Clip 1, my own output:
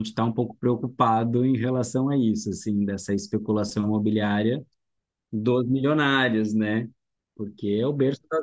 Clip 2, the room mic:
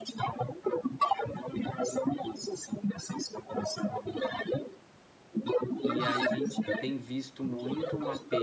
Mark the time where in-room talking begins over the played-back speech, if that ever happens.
5.8 s

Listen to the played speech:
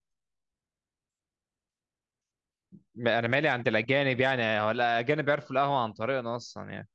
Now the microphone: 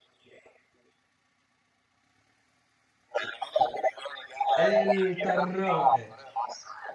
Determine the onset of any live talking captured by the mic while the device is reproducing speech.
4.6 s

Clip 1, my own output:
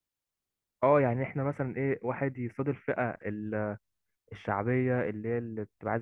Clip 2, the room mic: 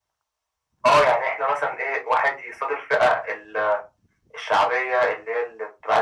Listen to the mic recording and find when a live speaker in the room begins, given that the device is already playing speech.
none

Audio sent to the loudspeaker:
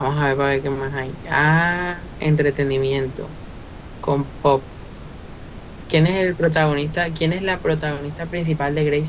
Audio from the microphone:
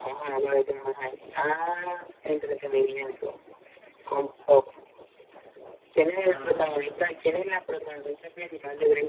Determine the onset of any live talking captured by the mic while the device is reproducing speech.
6.1 s

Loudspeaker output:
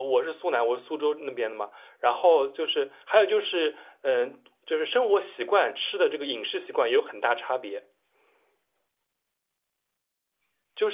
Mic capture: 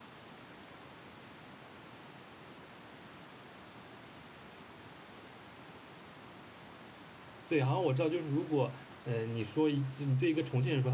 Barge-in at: 7.4 s

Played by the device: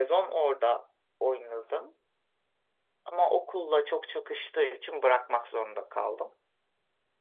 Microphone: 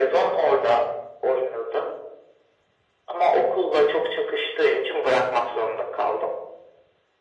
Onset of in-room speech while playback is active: none

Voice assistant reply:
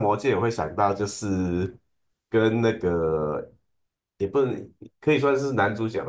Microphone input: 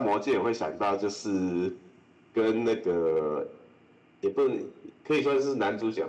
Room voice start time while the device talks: none

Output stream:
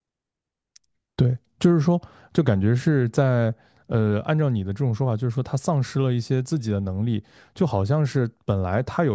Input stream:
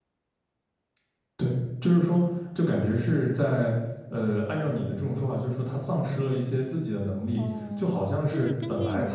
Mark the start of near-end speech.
7.3 s

